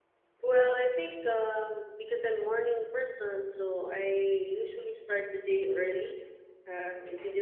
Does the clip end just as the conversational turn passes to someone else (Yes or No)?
No